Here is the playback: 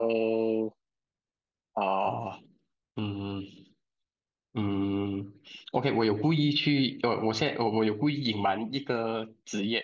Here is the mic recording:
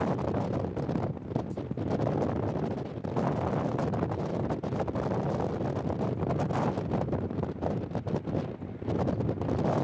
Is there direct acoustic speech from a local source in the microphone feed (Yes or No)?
No